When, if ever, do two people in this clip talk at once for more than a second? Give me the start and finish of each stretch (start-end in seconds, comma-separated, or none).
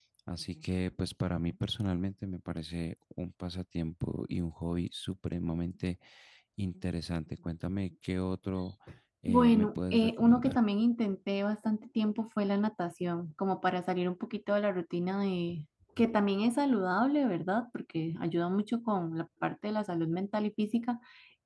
9.3-10.6